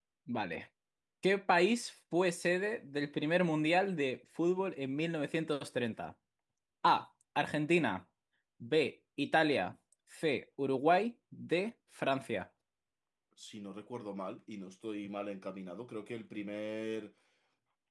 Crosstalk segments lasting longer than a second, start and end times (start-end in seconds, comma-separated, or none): none